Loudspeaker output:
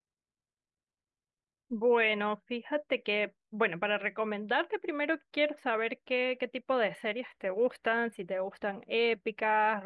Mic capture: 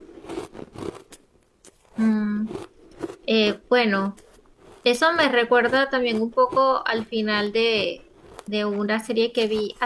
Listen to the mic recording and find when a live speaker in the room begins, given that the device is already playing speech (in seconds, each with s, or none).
2.0 s